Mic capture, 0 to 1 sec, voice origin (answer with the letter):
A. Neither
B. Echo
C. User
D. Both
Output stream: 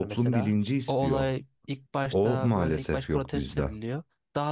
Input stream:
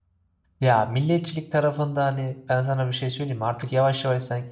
C